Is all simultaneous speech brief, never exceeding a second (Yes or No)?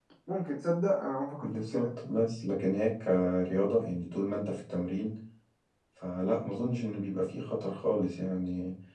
Yes